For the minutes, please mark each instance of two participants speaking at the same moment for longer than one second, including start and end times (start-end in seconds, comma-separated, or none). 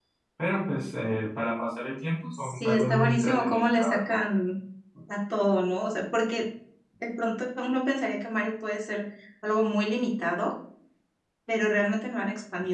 2.3-4.2